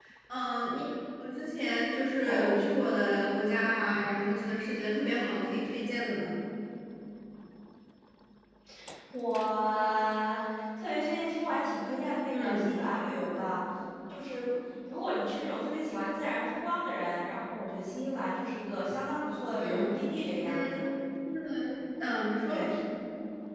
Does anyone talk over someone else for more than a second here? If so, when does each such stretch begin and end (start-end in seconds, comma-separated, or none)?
none